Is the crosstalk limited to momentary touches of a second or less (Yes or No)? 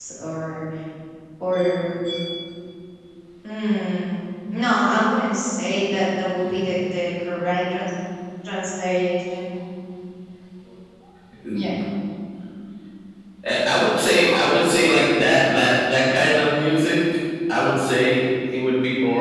Yes